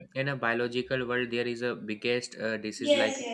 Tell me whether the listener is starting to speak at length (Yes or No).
Yes